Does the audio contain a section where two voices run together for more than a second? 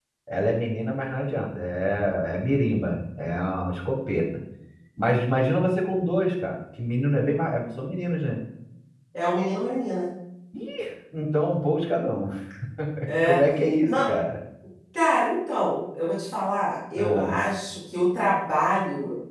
No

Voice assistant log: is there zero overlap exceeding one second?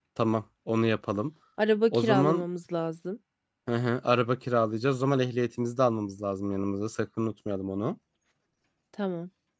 Yes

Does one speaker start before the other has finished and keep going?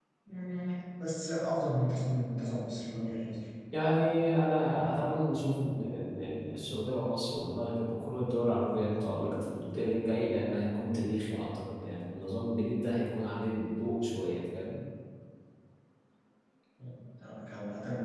No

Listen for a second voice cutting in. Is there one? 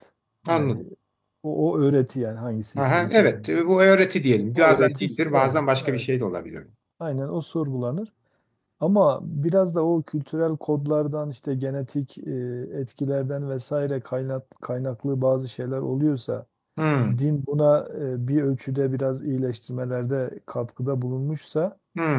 Yes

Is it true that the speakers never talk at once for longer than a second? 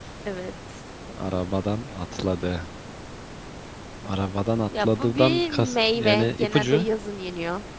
No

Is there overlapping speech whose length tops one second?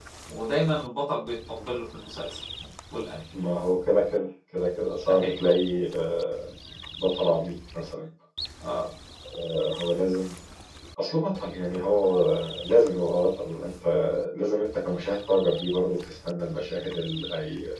No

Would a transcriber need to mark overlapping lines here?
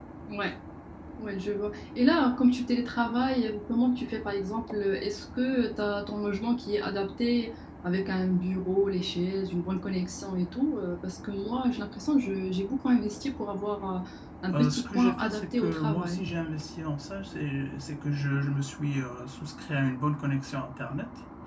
Yes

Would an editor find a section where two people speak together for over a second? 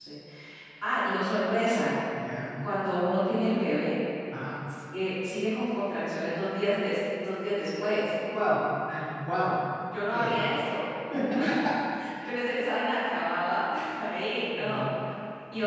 No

